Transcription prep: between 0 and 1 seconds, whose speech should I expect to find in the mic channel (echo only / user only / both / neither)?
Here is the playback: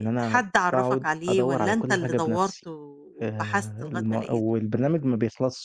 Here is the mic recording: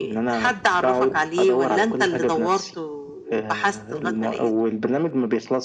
echo only